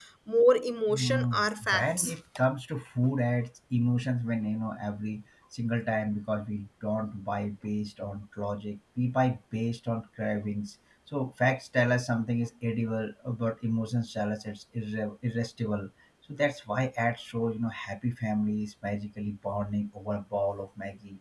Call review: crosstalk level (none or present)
present